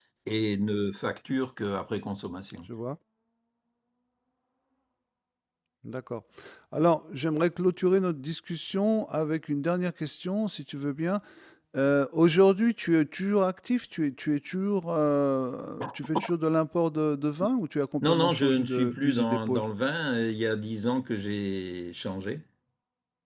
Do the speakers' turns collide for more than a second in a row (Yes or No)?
Yes